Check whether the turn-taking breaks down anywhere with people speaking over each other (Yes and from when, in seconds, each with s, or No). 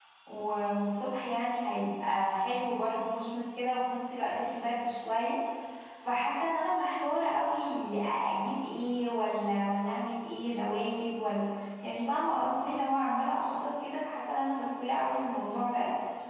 No